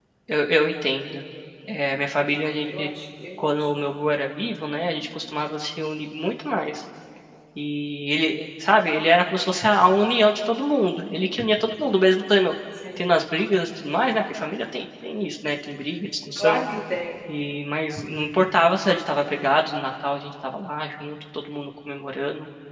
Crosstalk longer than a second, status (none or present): none